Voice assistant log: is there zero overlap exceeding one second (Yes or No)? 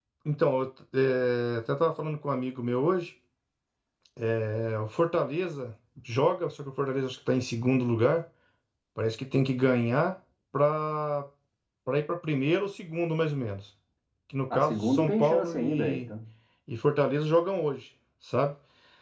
No